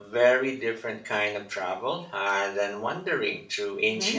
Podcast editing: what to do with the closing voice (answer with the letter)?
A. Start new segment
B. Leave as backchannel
A